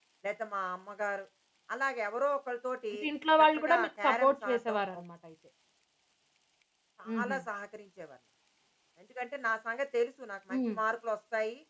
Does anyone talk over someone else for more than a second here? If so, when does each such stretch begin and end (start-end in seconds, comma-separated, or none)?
3.4-5.0